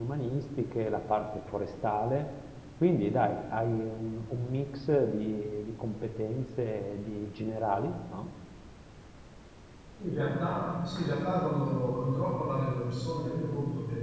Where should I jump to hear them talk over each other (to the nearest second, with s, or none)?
none